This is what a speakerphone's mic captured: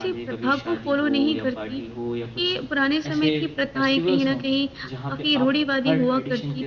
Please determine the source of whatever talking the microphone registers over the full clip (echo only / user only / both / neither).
both